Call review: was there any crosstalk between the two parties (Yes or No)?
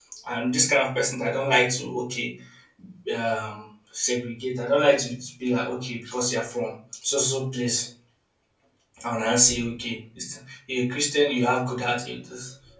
No